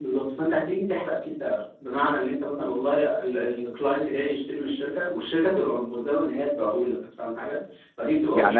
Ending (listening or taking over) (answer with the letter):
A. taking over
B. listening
A